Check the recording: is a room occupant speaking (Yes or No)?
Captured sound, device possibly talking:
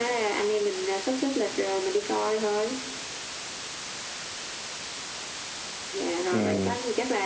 Yes